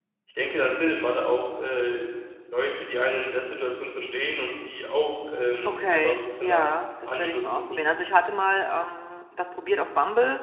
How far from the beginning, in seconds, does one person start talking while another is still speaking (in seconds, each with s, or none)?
5.6 s